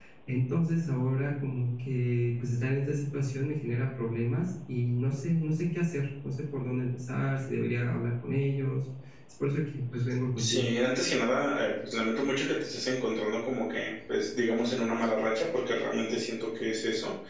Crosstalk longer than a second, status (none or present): none